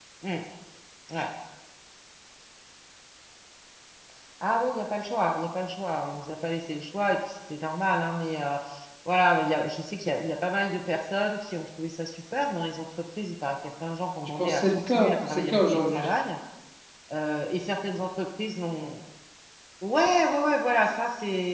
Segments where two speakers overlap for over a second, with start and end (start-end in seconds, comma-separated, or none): 14.4-16.1